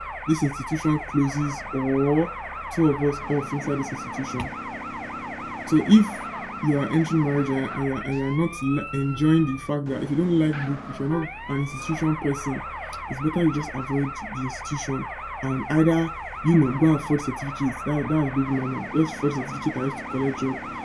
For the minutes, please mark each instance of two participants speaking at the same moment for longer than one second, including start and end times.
none

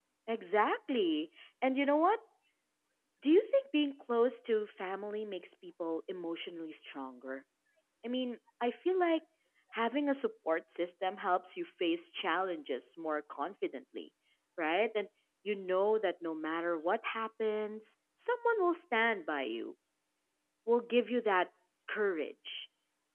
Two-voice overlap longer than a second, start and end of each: none

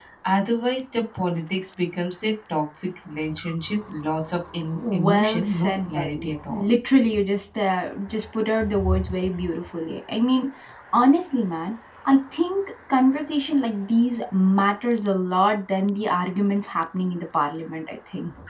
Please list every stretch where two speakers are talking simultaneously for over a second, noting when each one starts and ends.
4.9-6.6

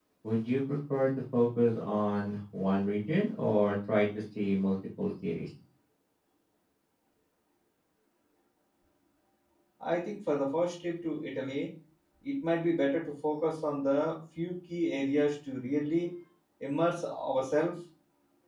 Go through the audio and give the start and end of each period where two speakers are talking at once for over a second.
none

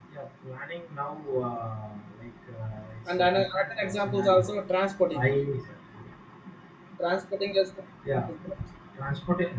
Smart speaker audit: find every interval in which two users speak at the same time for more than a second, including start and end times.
3.2-4.5

